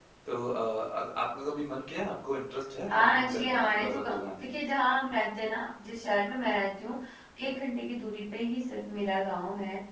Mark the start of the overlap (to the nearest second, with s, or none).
3 s